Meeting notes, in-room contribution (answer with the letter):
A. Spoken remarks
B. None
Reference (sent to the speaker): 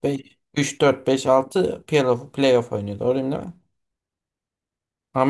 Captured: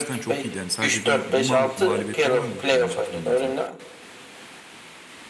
A